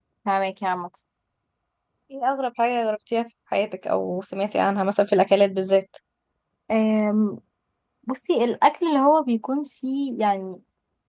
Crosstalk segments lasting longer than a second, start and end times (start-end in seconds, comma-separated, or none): none